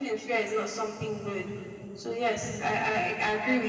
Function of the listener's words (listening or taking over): taking over